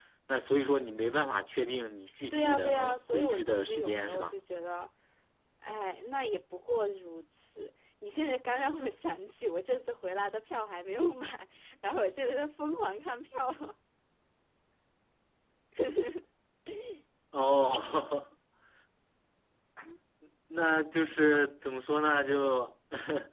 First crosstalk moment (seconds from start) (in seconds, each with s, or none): 2.3 s